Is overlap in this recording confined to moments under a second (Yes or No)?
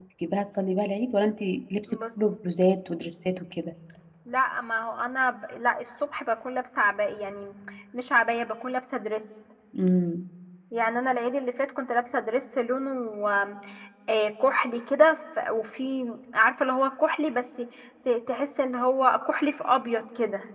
Yes